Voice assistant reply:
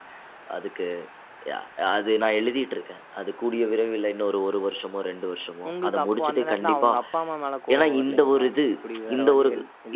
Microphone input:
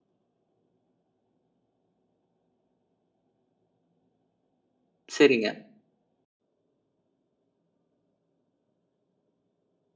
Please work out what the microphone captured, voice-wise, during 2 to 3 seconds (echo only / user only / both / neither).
neither